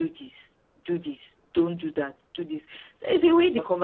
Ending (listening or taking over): listening